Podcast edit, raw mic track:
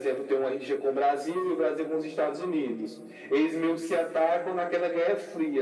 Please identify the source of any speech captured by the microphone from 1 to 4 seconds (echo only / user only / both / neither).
echo only